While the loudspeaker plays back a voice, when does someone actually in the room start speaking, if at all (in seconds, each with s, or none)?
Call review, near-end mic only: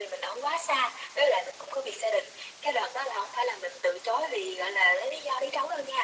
none